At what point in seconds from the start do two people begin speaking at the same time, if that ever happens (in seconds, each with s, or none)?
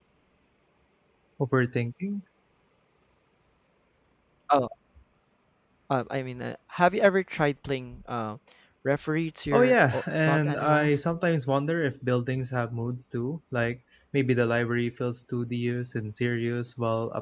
9.5 s